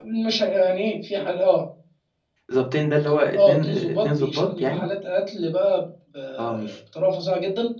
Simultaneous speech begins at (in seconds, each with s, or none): 3.4 s